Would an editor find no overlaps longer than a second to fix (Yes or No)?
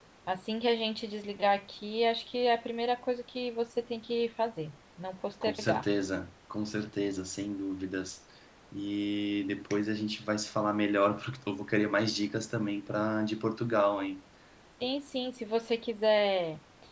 Yes